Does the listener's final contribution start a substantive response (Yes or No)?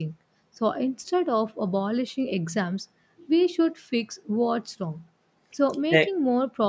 No